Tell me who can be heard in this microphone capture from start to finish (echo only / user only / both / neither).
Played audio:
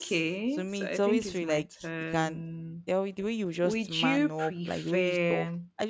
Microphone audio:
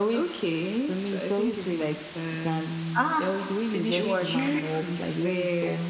both